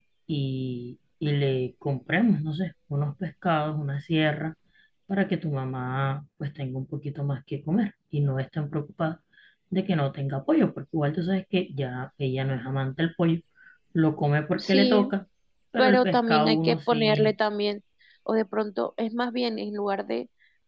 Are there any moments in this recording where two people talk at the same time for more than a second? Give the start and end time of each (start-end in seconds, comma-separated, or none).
15.8-17.3